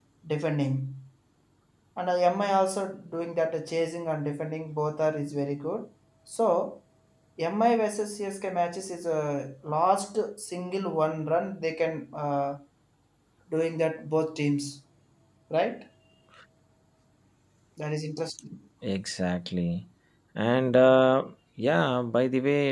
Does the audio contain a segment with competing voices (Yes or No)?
No